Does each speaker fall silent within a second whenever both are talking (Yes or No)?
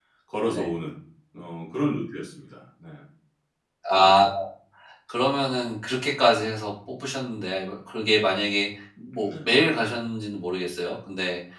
Yes